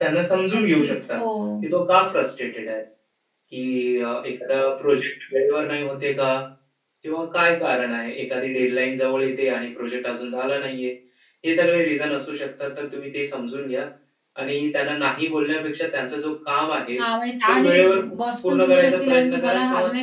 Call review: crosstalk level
present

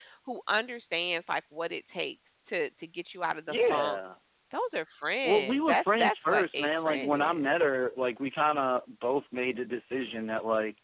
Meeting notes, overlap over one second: present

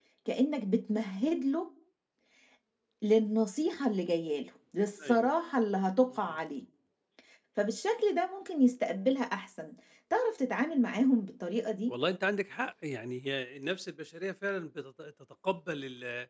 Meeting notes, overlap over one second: none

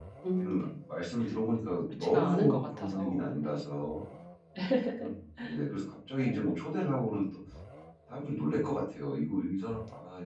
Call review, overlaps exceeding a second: present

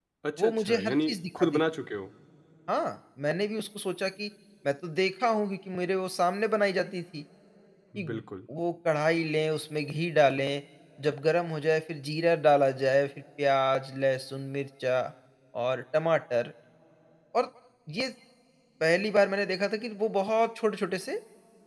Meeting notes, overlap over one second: present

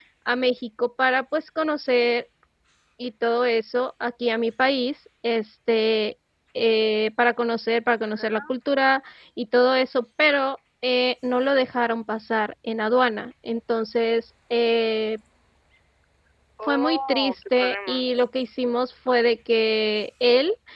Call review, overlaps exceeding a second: present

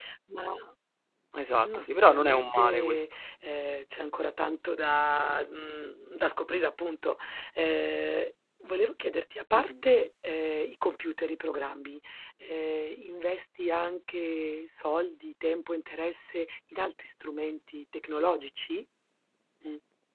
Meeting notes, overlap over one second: present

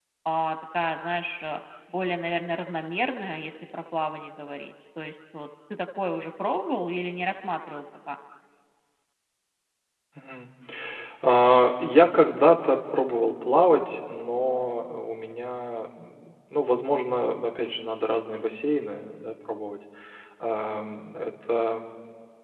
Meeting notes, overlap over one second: none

